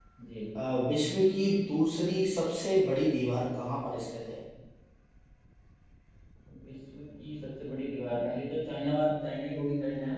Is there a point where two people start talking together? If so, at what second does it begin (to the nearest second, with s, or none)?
none